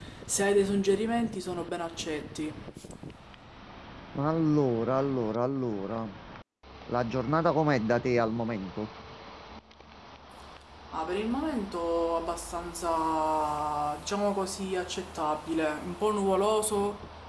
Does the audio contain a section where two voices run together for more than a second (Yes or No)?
No